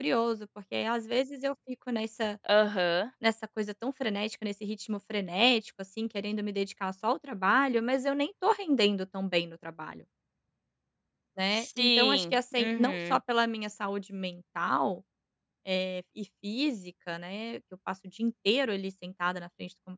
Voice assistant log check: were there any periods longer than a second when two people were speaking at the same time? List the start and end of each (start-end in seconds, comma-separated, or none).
11.6-13.2